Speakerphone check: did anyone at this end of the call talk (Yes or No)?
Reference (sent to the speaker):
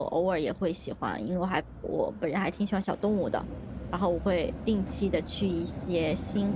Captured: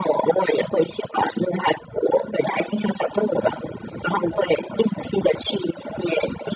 No